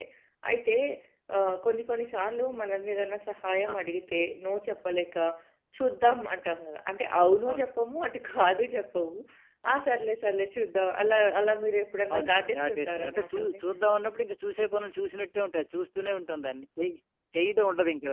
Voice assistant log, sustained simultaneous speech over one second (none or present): present